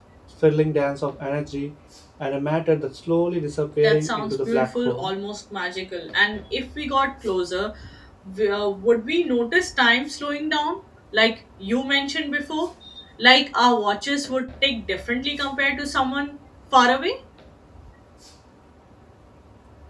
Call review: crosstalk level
present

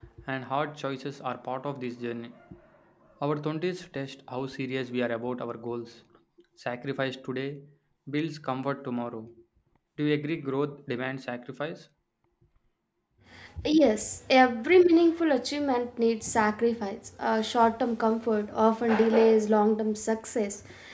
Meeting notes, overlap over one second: none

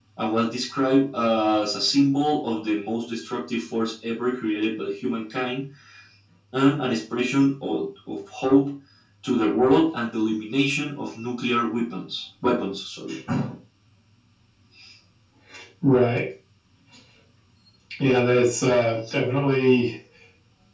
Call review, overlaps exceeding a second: none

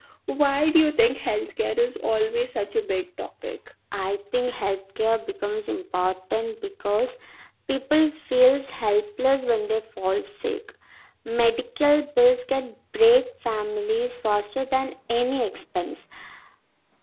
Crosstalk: none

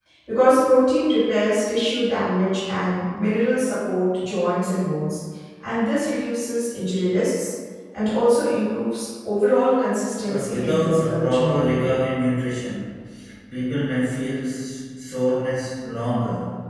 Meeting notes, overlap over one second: present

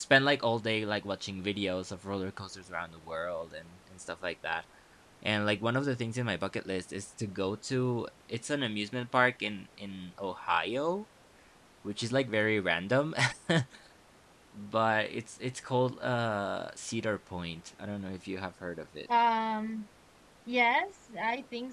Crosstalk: none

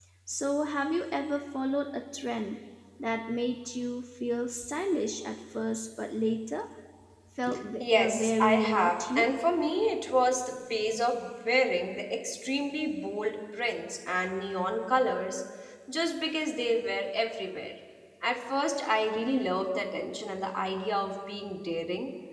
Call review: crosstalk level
present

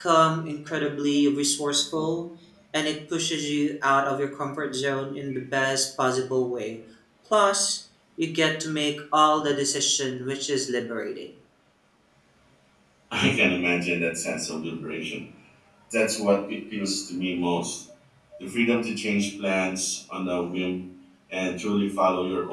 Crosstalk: none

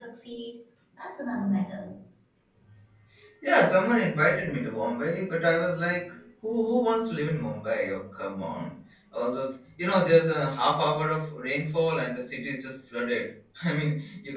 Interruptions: none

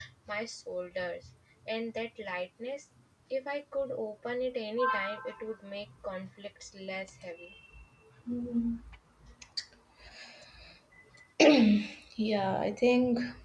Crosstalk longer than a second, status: none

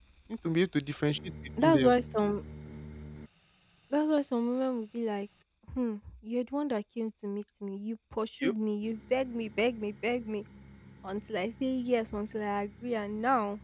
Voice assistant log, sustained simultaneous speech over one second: none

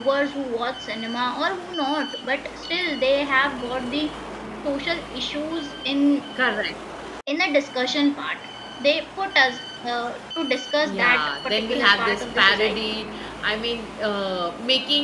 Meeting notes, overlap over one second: present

